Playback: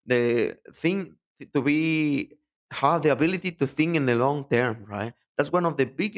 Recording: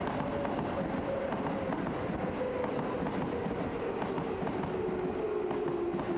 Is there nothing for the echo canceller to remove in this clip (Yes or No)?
Yes